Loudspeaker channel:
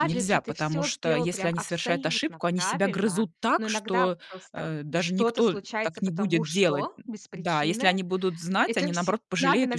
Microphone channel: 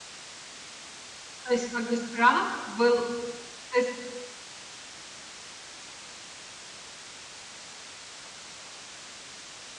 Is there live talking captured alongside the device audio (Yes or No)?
Yes